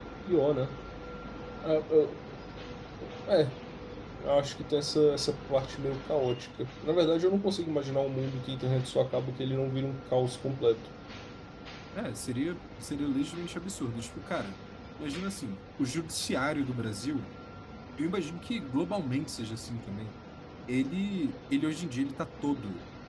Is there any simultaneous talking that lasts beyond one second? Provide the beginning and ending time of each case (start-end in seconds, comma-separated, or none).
none